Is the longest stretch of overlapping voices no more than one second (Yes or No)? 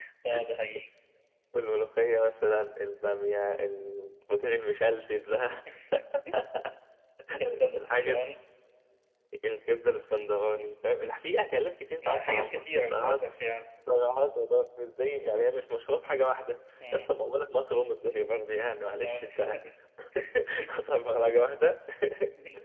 No